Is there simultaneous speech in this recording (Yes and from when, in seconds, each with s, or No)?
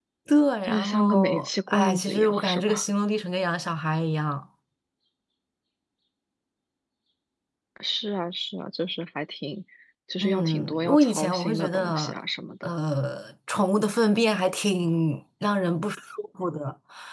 Yes, from 0.6 s